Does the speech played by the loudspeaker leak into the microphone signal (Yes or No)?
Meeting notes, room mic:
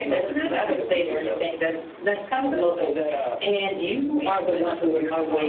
Yes